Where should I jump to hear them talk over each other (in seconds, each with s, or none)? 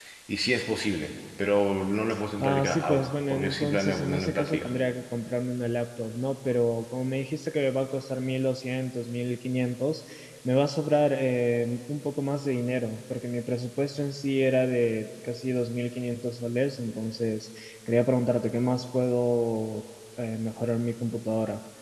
2.4 s